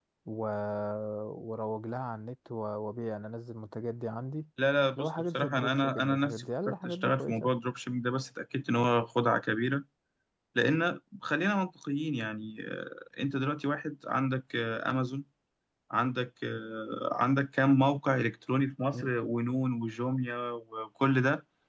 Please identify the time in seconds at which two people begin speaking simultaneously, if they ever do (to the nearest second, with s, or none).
5 s